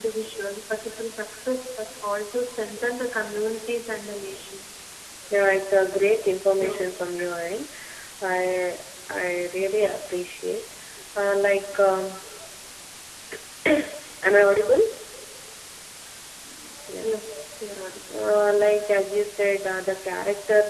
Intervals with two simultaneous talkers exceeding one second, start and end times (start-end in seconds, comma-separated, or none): none